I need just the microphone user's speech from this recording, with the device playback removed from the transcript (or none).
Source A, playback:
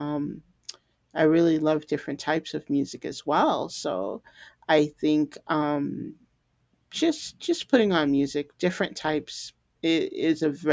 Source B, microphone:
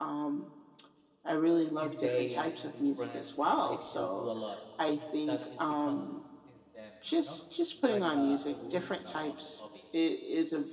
this day and in this present i still do a lot and it, that it becomes since then you know it's like a evolution o- of the hobby